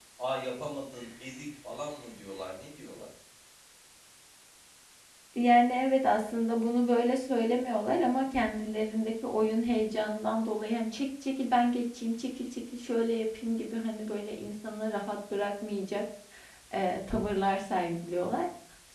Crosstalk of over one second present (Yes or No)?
No